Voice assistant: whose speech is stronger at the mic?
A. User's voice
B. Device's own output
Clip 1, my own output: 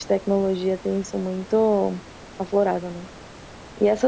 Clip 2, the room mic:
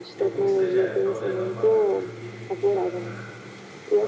B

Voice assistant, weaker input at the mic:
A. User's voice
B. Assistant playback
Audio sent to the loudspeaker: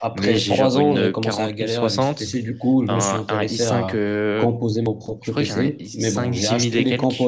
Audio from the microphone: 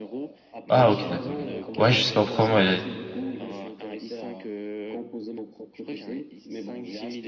B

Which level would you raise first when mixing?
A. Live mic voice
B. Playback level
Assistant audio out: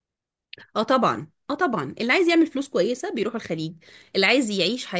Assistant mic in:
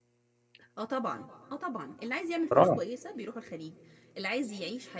B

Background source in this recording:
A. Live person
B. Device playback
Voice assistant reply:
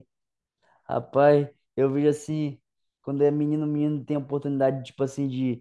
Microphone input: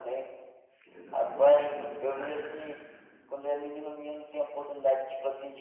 A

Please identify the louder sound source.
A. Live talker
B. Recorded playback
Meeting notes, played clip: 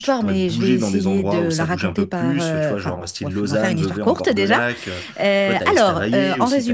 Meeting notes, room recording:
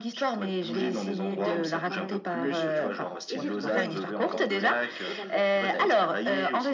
B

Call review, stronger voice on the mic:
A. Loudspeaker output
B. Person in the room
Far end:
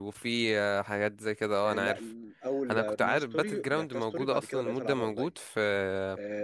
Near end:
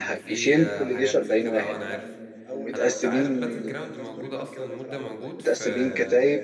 B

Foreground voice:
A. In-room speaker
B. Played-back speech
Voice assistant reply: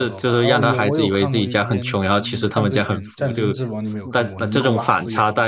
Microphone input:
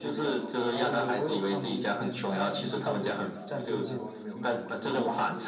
B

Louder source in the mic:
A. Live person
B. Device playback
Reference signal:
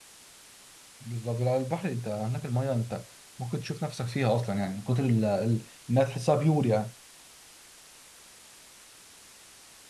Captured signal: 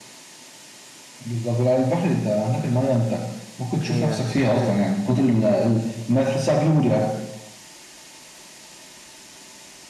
B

